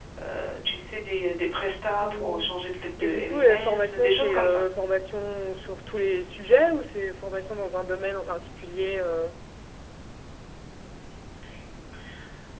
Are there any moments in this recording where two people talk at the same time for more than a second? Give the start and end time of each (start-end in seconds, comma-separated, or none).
3.0-4.6